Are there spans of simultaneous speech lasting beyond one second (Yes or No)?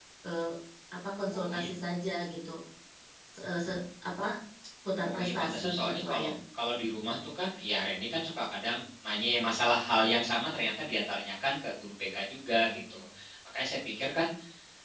Yes